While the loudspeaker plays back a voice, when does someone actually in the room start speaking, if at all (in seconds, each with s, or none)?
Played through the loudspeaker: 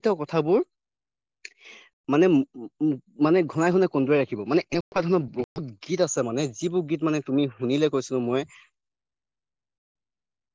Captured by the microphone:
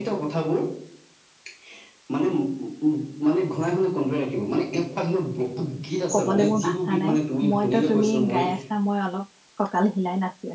6.2 s